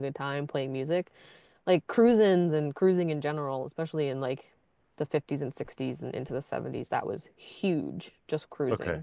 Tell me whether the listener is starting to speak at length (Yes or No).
No